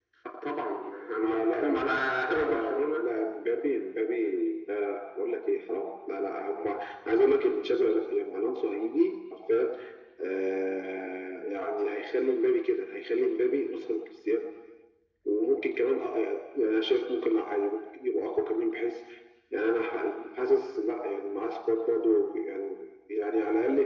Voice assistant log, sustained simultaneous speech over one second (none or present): present